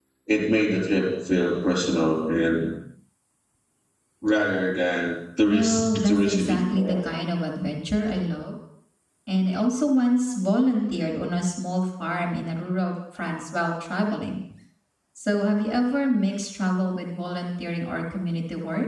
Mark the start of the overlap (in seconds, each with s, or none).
5.4 s